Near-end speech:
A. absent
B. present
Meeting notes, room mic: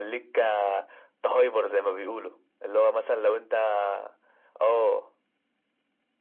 A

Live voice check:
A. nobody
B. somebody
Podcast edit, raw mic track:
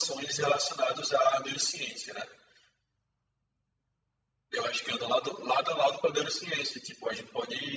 A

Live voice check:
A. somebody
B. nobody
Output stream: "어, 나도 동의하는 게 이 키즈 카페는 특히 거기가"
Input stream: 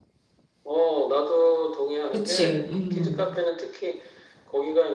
A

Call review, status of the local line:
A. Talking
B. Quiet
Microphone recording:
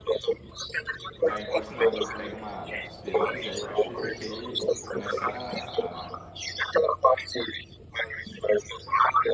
A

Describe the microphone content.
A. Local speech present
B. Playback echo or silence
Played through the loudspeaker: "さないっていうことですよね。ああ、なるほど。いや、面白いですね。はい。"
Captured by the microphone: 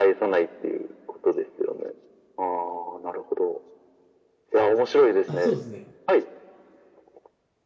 A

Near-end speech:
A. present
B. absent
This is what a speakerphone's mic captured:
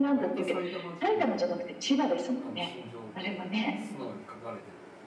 A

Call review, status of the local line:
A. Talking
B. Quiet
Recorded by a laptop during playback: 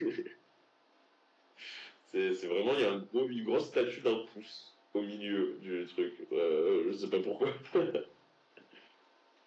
B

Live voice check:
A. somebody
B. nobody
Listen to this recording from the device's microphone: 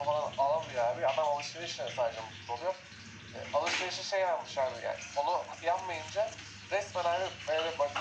B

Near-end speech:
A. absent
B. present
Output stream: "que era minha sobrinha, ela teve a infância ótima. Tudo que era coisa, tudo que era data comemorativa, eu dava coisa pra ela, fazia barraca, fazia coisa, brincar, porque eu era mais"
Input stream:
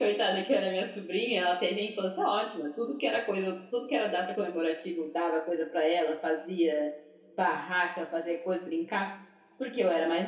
A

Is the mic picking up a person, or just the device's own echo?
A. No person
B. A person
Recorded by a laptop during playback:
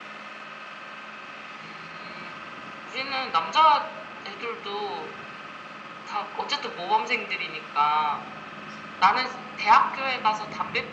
A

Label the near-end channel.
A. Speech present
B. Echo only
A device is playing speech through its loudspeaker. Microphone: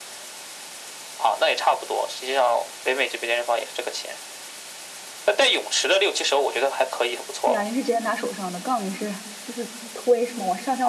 A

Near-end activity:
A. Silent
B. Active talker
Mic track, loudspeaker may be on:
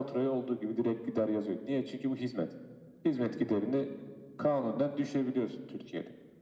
A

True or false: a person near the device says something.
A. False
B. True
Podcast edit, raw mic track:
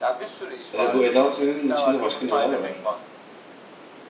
B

